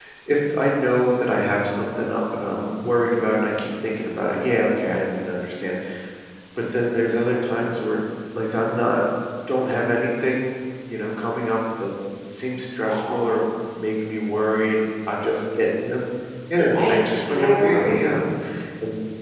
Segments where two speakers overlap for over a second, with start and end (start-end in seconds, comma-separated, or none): 16.6-18.2